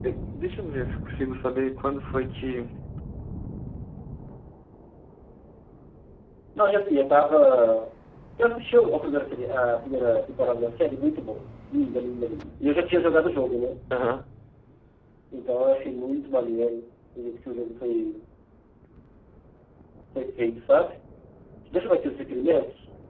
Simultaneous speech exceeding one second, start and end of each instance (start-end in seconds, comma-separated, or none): none